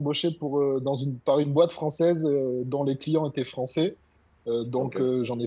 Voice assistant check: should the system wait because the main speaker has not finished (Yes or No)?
Yes